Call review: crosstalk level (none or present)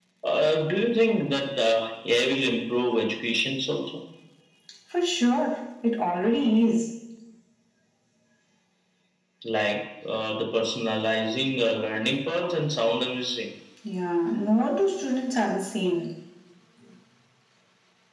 none